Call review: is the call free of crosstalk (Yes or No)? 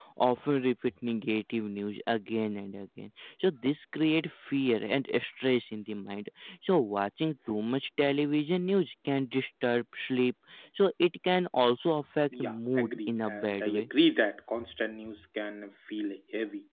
No